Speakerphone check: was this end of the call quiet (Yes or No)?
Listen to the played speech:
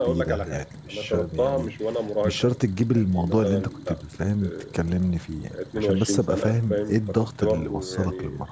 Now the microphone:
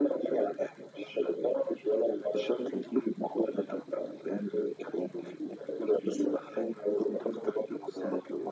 Yes